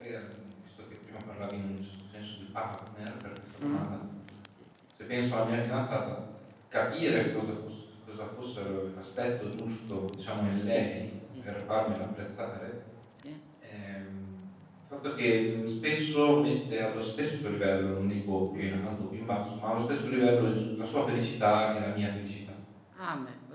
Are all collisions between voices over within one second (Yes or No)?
Yes